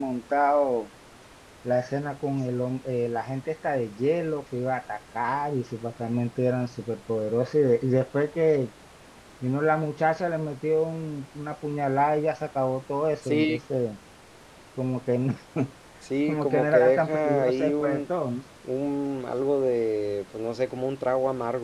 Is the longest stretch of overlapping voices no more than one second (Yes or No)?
No